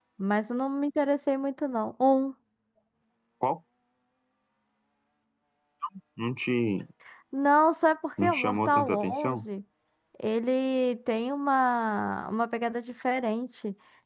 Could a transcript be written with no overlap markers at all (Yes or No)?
No